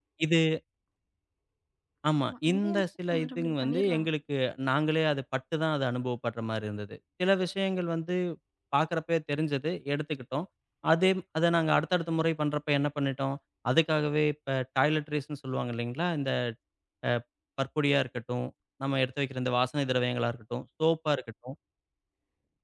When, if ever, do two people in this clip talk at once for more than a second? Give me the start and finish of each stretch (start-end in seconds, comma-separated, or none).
2.2-4.1